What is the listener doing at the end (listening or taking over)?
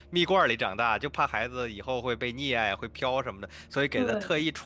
listening